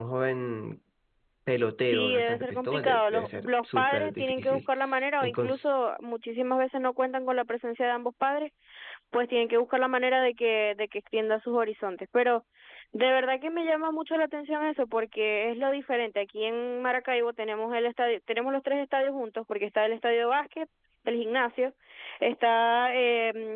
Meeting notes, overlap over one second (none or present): present